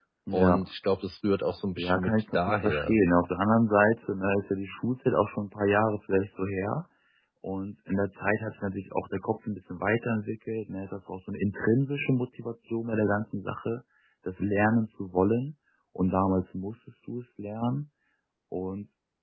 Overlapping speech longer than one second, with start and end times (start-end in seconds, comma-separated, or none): 1.8-3.0